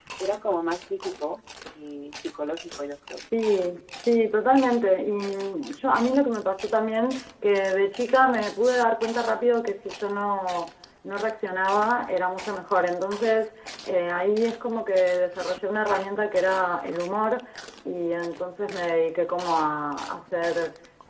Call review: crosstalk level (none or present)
none